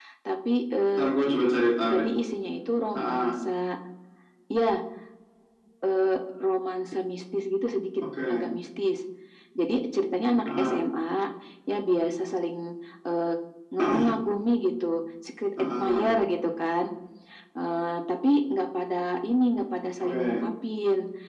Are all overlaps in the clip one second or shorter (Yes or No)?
Yes